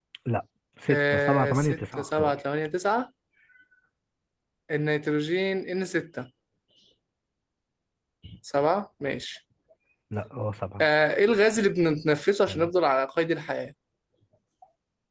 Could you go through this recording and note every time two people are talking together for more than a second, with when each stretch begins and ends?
0.9-2.3

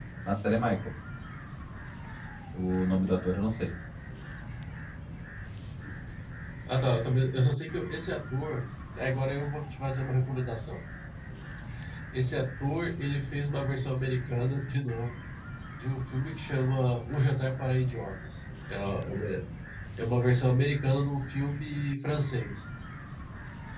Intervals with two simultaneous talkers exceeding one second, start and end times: none

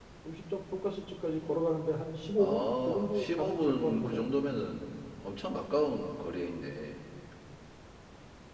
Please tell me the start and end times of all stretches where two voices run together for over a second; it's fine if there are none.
2.4-4.2

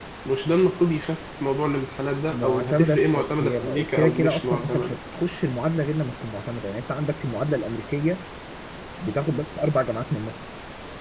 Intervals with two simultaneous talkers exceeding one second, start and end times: 2.3-5.0

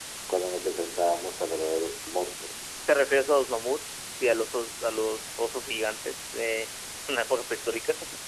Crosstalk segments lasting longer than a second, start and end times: none

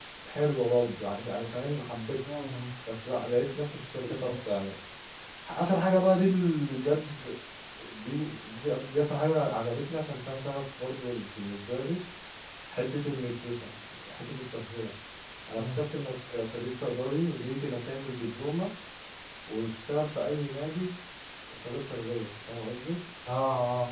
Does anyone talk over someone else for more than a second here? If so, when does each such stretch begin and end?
none

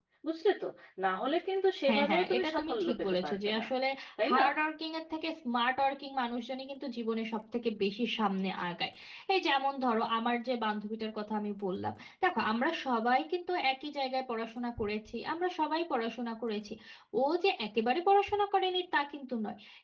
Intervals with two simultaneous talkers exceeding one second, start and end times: 1.9-3.6

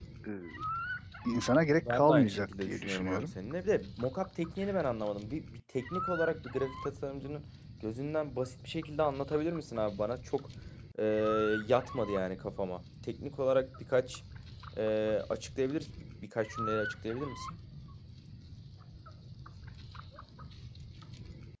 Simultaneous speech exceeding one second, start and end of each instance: 1.8-3.3

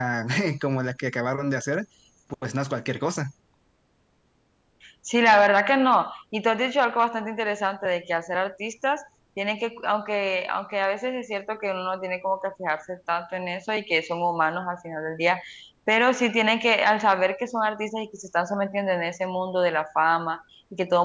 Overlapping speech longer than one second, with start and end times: none

